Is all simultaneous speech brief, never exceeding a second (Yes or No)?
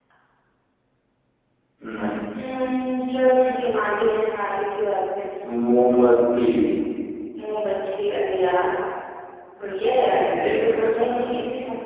No